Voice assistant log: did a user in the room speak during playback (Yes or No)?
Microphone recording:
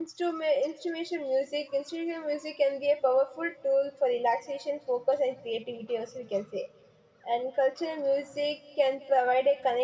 Yes